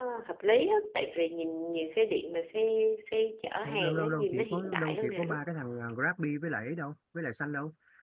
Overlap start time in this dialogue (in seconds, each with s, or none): 3.6 s